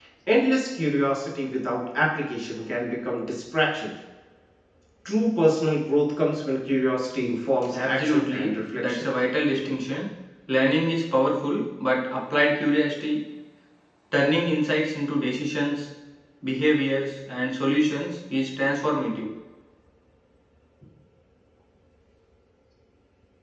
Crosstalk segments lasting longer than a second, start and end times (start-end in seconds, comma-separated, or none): 7.7-9.0